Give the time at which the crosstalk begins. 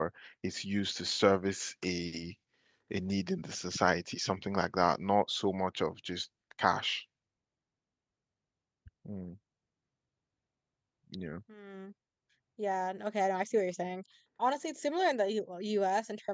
none

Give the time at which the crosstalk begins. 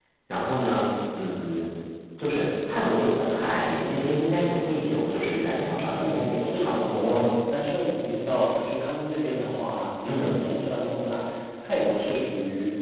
6.0 s

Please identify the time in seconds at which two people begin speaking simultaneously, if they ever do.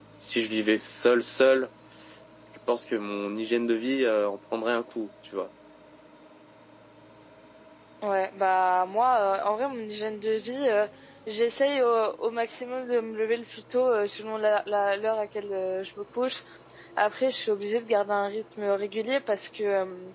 none

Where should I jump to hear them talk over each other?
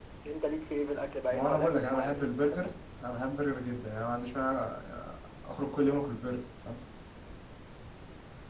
1.3 s

